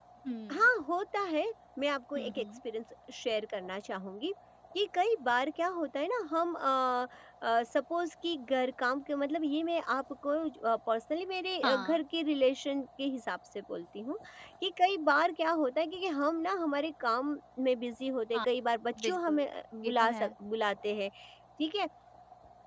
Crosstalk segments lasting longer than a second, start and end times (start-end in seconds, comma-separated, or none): none